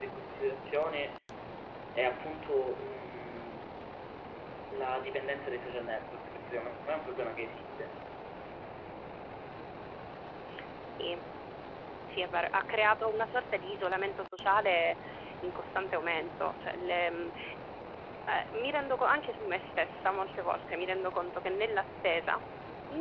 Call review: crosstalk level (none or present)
none